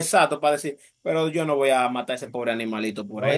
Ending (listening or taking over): taking over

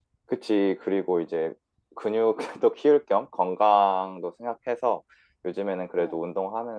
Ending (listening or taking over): listening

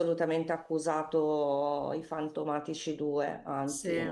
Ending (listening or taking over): listening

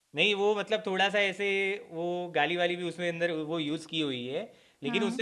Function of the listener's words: listening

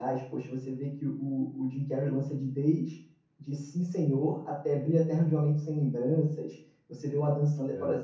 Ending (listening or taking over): listening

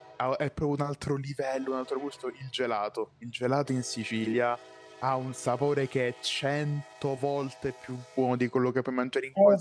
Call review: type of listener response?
taking over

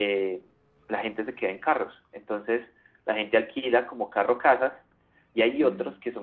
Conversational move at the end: listening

